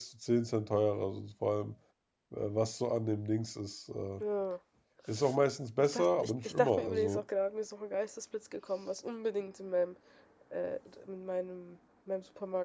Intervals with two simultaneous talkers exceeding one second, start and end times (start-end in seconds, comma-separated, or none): 5.9-7.2